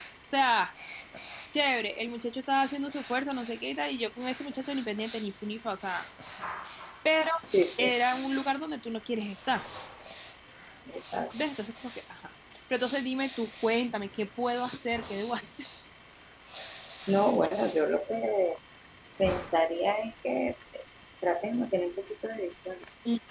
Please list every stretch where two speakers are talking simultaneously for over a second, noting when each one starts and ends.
none

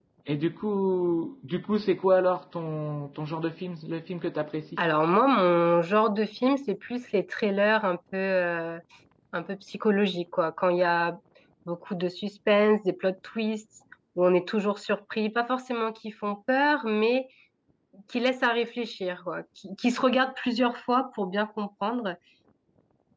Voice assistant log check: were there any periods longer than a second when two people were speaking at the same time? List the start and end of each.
none

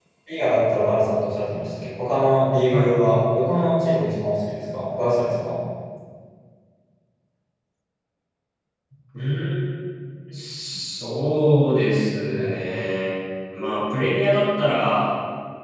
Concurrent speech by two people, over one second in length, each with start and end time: none

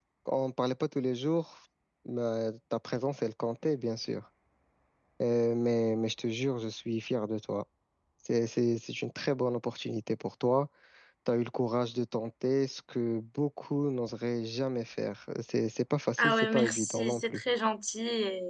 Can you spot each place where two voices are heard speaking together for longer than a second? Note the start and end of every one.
16.2-17.4

